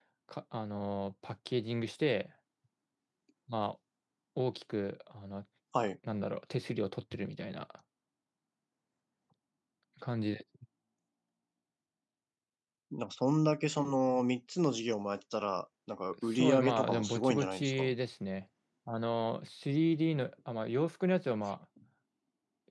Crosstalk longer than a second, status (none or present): present